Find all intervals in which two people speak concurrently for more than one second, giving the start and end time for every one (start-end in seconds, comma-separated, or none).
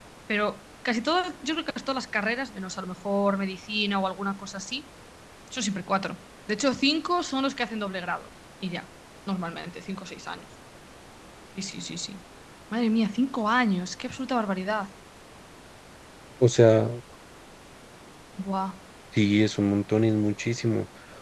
none